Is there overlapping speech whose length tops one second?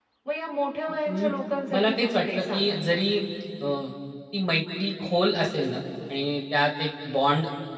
Yes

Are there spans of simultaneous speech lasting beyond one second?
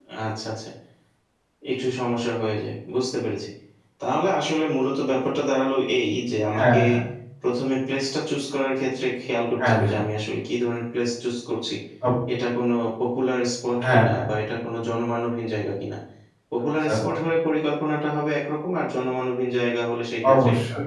No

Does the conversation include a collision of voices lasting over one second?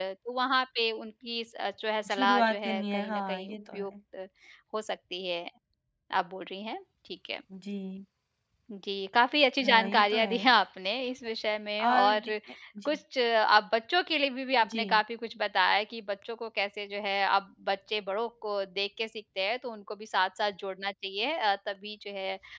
Yes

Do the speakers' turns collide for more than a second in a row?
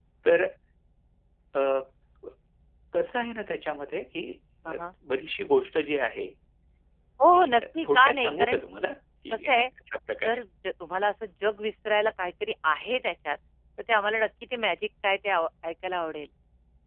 Yes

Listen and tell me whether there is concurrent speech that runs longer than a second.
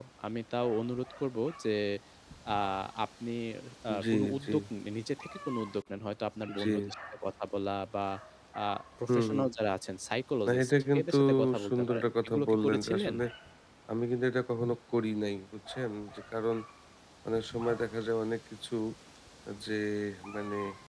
Yes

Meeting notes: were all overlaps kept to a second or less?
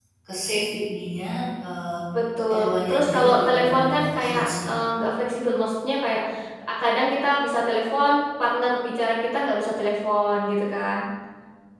No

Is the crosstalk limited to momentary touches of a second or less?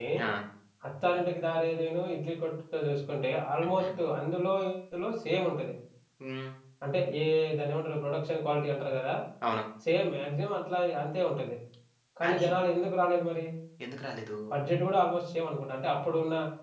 Yes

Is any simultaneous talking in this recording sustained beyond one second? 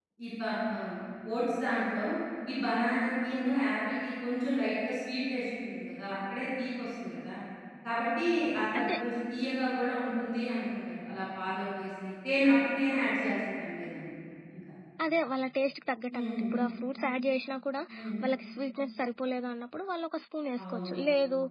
No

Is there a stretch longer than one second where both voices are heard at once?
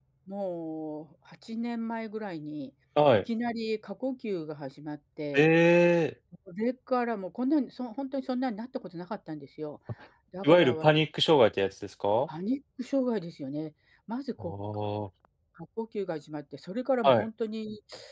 No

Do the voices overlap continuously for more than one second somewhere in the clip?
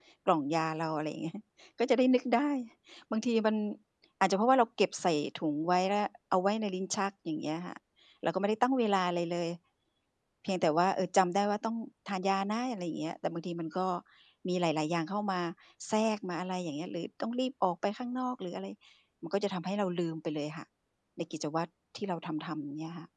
No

